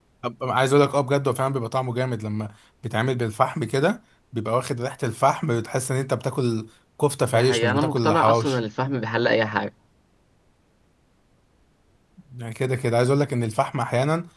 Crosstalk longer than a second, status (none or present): present